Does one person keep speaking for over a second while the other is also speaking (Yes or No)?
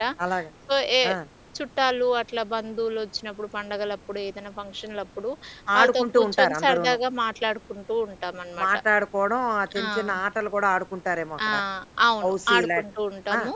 Yes